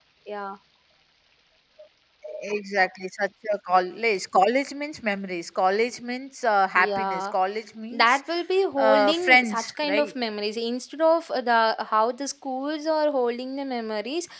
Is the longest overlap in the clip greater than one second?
Yes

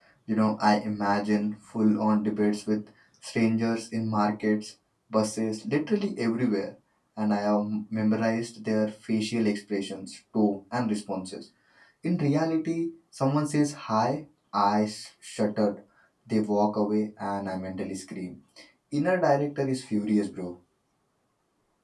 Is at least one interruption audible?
No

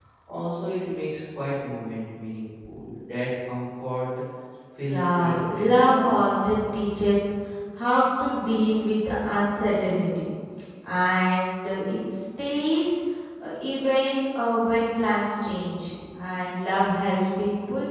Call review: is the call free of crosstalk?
No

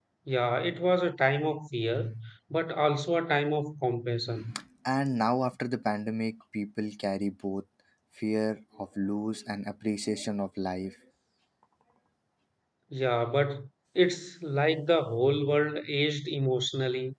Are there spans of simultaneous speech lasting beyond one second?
No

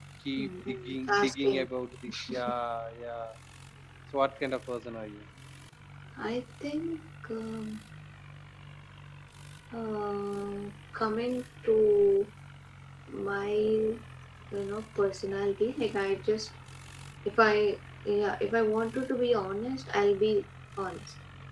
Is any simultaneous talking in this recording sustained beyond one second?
Yes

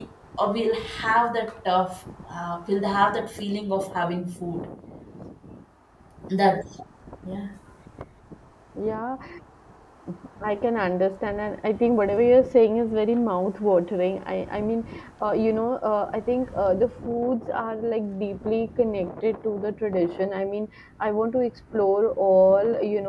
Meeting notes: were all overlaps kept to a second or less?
Yes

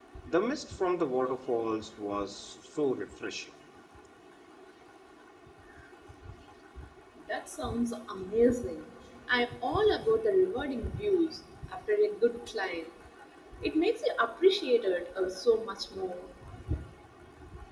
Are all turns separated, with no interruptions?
Yes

